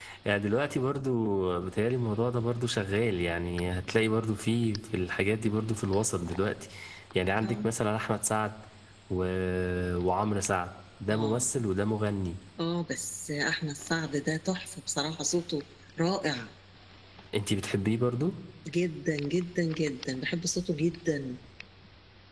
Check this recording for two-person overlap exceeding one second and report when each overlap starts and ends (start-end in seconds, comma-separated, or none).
none